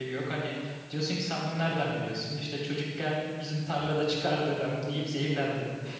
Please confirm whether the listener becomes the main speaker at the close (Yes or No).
No